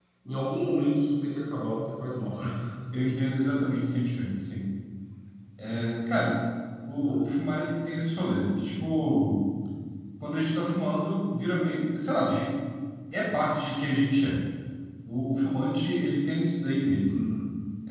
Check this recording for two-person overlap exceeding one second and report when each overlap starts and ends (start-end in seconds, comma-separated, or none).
none